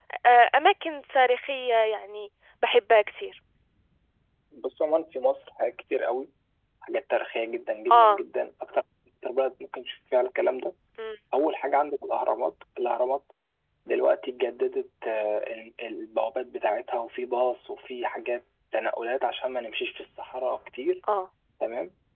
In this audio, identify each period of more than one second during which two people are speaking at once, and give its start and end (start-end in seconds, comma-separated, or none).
none